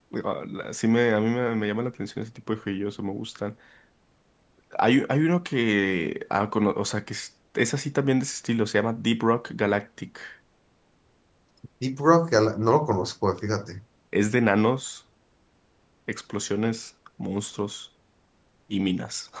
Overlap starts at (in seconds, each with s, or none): none